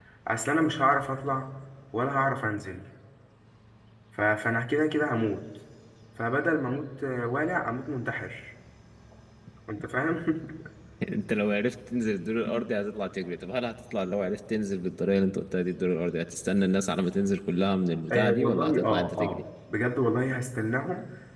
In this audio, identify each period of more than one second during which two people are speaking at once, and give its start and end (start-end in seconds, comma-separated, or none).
18.1-19.4